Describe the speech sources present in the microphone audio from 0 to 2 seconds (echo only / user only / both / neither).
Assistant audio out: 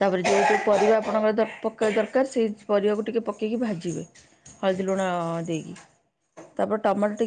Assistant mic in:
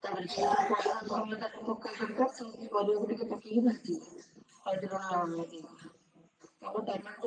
echo only